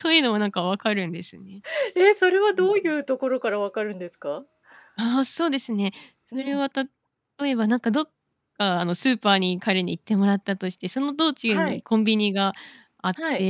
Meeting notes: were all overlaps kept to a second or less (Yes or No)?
Yes